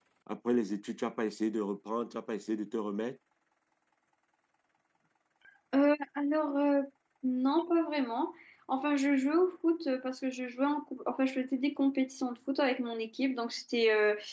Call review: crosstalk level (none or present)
none